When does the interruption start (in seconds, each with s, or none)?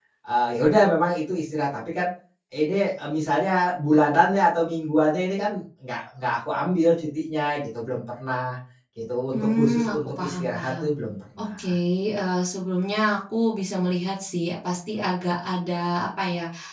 9.3 s